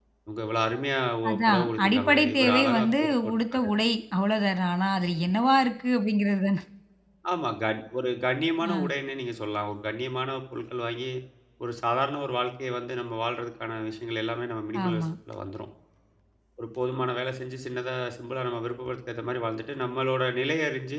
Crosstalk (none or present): present